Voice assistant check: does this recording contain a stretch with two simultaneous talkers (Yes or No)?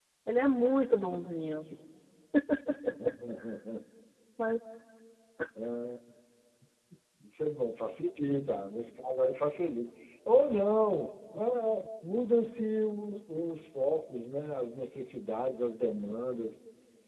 No